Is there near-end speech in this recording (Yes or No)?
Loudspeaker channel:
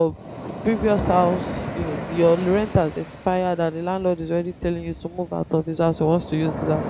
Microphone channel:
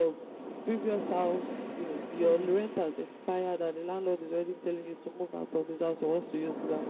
Yes